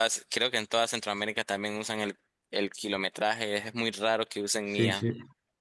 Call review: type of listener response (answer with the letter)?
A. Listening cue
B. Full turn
B